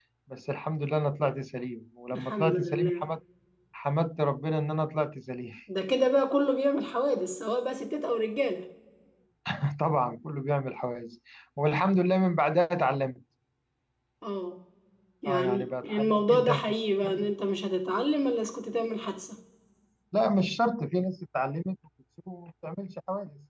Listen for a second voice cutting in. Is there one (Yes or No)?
Yes